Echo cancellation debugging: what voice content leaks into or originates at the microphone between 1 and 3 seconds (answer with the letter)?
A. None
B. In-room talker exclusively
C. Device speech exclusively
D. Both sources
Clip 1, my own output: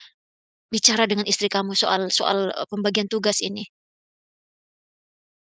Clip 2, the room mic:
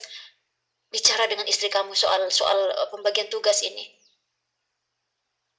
C